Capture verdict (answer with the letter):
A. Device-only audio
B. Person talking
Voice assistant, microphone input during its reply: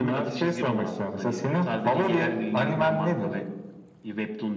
A